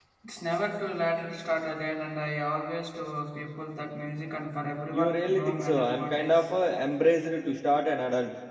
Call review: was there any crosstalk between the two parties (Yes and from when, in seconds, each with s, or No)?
Yes, from 4.9 s